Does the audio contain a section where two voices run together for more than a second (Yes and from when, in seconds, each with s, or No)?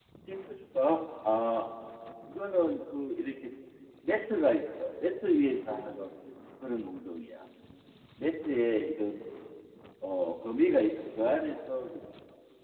No